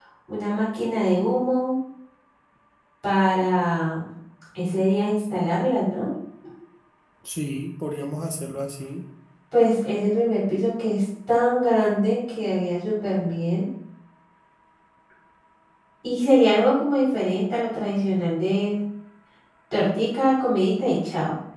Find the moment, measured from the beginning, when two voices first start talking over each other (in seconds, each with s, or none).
none